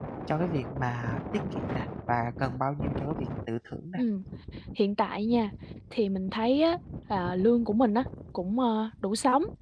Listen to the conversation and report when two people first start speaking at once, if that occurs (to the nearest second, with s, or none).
none